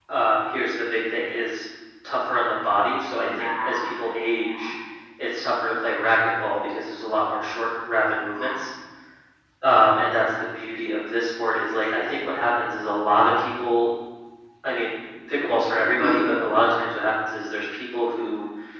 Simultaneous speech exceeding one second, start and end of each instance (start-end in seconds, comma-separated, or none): 3.1-4.7